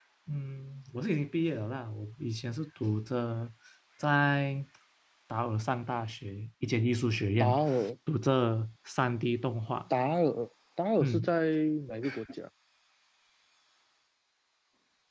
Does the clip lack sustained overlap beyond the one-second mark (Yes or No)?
Yes